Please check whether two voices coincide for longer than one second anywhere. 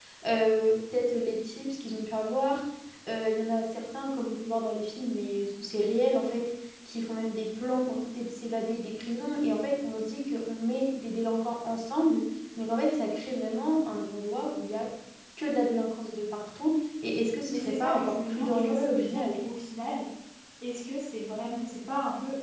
Yes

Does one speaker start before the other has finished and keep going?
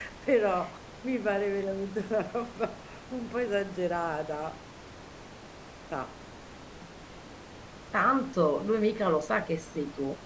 No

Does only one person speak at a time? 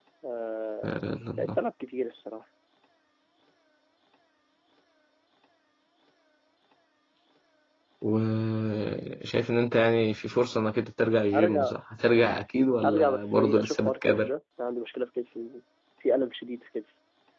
No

